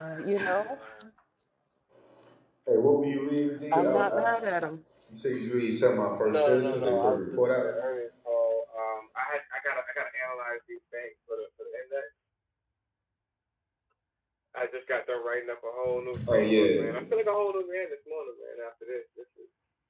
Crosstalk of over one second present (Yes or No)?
Yes